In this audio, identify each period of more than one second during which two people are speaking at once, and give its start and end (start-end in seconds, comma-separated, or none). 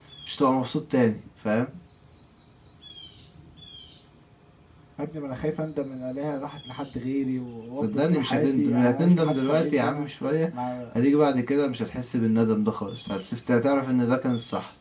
7.8-10.1